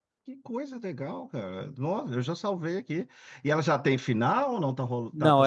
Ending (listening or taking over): taking over